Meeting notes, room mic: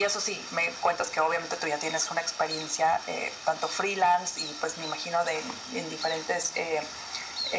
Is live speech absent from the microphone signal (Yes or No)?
Yes